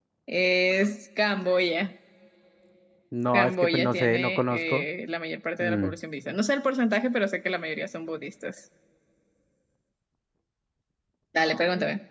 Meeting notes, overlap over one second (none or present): present